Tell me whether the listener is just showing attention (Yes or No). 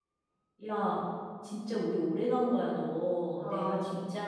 Yes